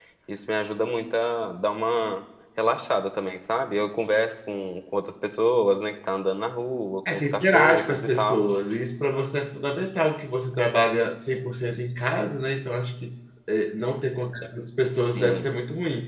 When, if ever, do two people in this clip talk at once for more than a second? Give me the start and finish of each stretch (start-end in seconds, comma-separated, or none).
7.1-8.5